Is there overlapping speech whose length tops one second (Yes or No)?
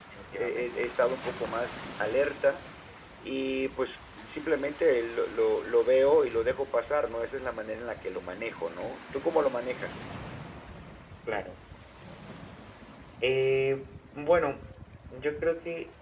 No